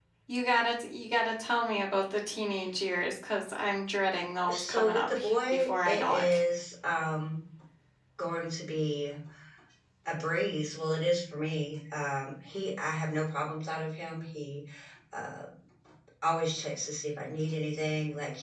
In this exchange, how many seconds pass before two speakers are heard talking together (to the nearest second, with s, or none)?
4 s